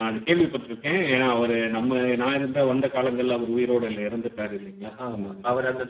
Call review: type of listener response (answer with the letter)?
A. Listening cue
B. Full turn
B